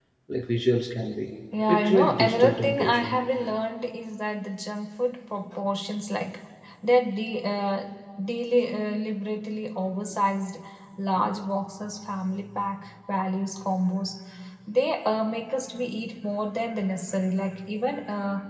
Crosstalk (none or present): present